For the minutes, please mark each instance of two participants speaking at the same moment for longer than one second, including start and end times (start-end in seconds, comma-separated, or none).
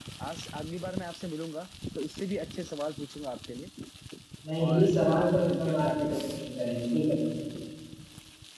4.7-6.3